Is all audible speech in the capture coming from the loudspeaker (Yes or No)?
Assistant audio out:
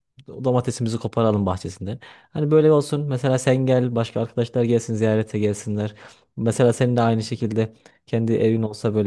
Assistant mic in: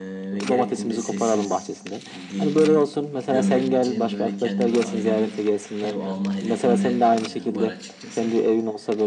No